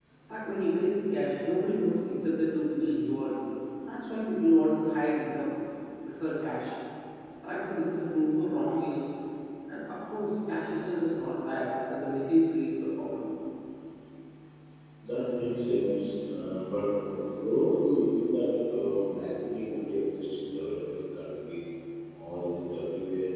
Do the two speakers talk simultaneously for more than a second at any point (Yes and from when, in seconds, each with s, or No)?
No